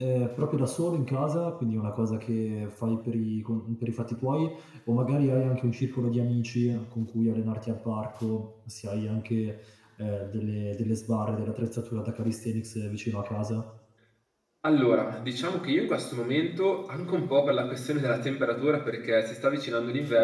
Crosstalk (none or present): none